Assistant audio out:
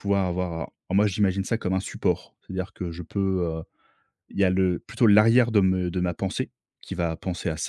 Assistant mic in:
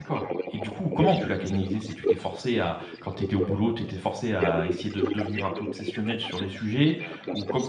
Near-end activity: present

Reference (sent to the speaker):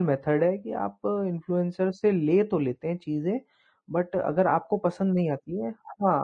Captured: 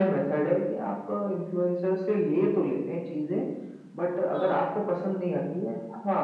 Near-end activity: present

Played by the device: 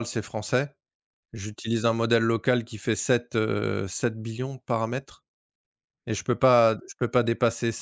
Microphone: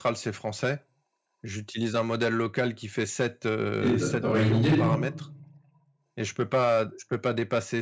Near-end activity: present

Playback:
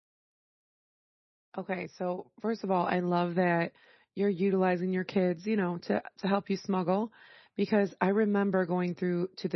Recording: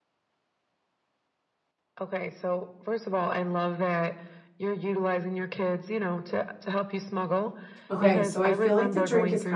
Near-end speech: present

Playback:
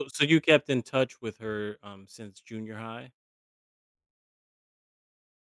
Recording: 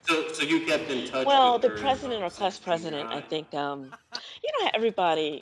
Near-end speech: present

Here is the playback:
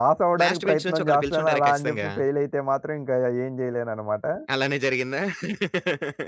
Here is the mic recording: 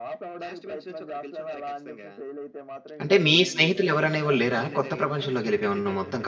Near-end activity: present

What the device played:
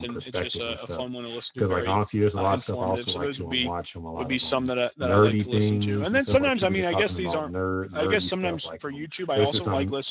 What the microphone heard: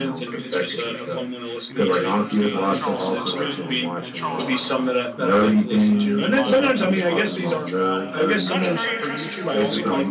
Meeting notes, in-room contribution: present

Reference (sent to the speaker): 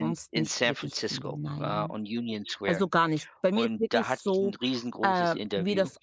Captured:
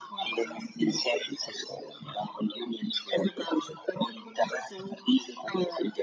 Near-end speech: none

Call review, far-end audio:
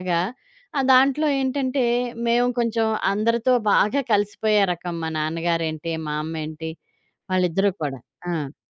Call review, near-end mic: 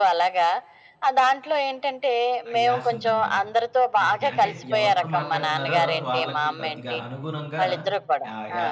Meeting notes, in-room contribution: present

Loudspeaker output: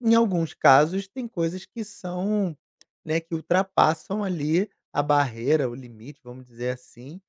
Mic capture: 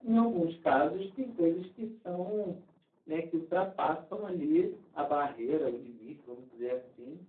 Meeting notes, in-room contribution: none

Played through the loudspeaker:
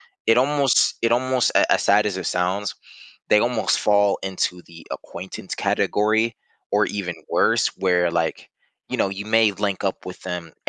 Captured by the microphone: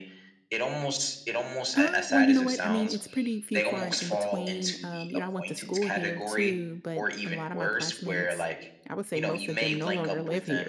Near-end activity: present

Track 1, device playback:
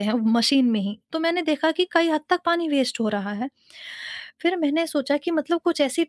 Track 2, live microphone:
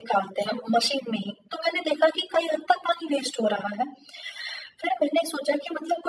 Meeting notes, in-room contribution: none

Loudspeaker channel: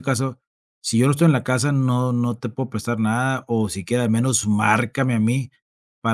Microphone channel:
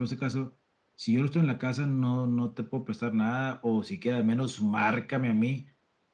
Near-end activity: none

